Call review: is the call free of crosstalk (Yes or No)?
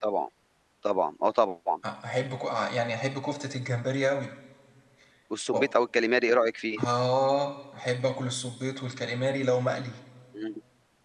Yes